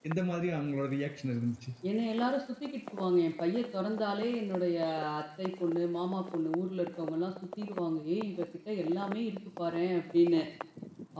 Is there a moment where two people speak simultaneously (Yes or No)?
No